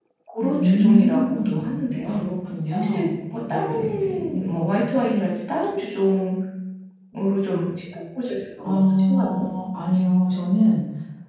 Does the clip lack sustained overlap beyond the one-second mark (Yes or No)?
No